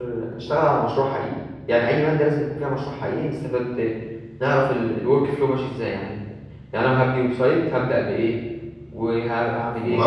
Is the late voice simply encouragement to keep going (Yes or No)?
No